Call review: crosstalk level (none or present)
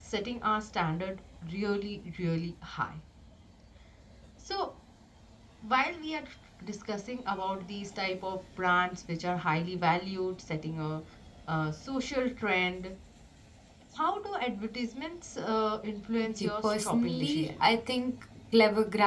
present